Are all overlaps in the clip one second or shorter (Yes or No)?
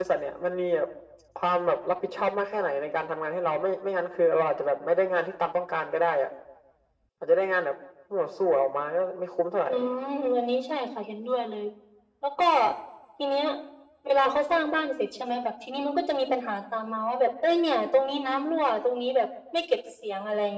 Yes